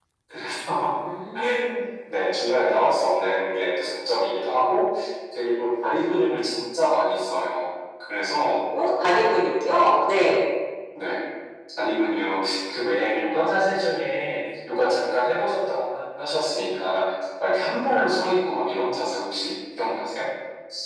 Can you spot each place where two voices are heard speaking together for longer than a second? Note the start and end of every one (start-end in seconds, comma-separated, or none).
none